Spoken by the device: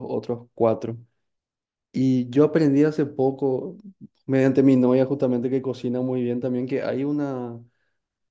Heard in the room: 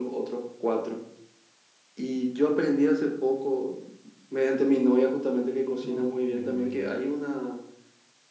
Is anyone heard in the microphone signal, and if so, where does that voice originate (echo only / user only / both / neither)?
both